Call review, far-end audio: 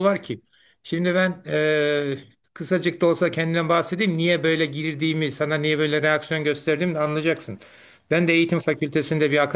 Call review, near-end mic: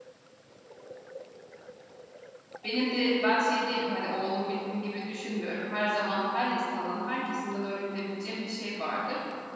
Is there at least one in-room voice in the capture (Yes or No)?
Yes